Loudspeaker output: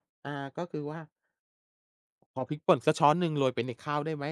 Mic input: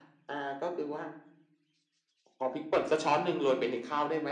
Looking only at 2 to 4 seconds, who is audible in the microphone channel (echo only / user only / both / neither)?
echo only